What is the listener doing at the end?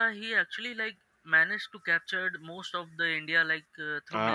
taking over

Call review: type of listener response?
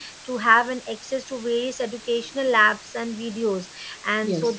listening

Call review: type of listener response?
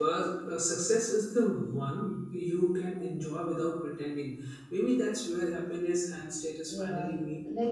taking over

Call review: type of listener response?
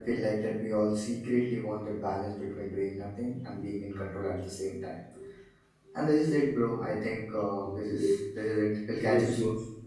taking over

